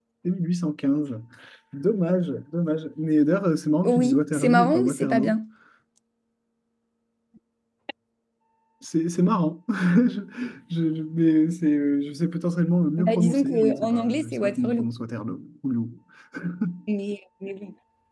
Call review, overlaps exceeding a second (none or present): present